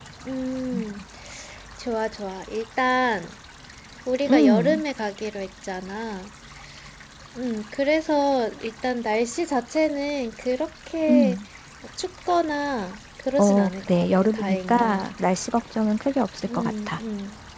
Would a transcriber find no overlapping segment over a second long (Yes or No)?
No